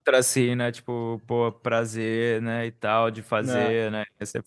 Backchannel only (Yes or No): Yes